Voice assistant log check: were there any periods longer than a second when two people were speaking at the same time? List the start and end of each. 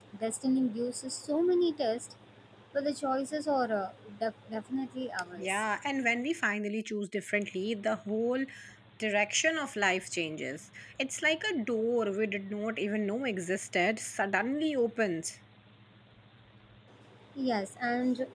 none

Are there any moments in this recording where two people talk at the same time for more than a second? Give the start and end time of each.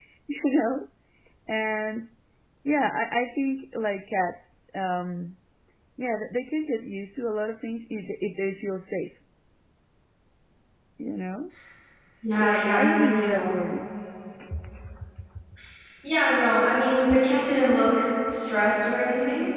12.2-13.5

